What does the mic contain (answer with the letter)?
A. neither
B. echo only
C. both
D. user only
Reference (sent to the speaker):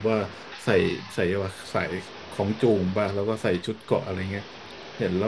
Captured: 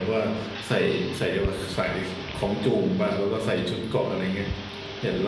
B